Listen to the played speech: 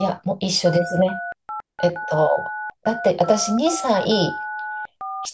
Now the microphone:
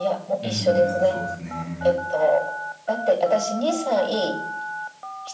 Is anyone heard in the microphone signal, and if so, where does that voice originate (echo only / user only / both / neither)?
both